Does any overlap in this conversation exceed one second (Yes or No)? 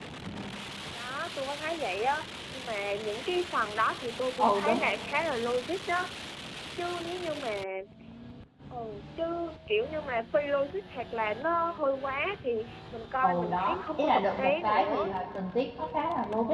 Yes